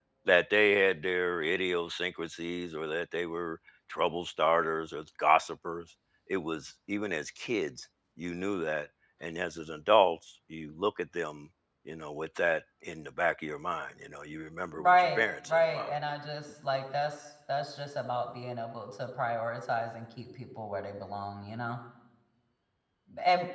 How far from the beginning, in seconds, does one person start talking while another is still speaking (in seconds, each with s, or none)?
14.8 s